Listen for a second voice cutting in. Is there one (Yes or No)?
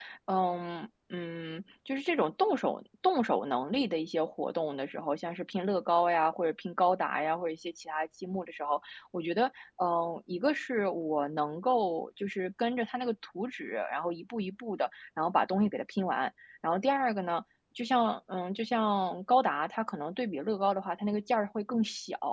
No